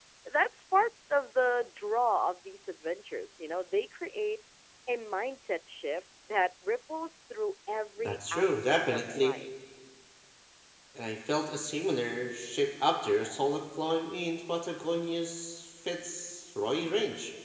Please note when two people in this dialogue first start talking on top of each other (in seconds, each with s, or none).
8.0 s